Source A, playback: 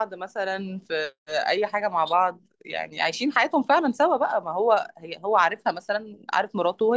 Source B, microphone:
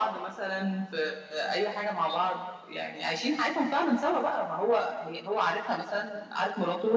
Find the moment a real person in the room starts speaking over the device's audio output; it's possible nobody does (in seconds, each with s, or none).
none